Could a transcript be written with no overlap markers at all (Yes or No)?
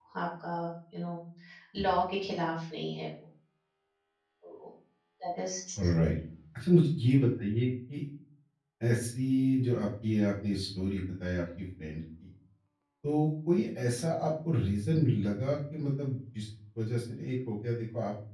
Yes